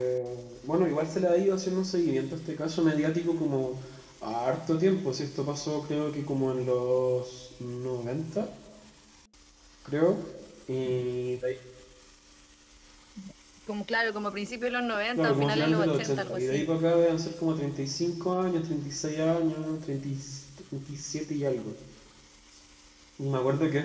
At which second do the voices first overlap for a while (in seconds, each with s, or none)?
15.2 s